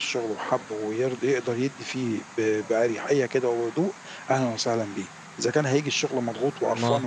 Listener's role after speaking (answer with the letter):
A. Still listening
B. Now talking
A